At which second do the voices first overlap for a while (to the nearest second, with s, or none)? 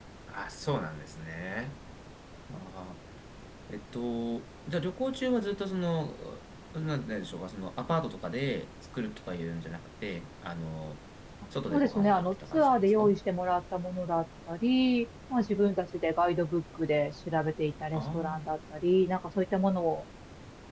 12 s